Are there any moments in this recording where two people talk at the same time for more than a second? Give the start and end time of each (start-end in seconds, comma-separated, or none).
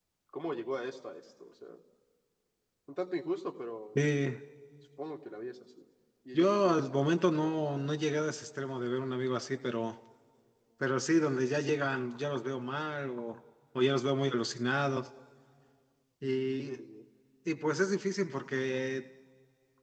6.3-7.6